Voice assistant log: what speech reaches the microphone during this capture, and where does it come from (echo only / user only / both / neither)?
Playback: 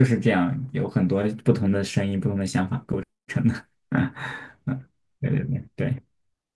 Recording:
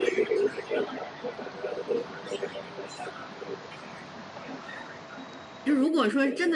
both